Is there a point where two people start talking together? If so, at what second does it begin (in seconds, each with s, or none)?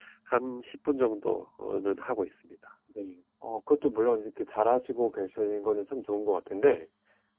none